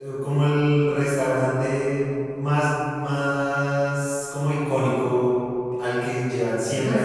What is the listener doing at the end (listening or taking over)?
listening